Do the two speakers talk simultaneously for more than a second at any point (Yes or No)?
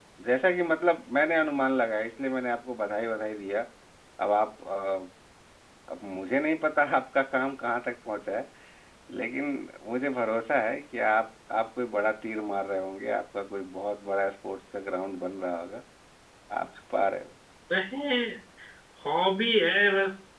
No